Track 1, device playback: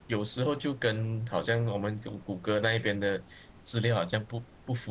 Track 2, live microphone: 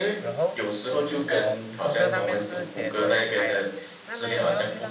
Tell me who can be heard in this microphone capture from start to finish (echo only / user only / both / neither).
both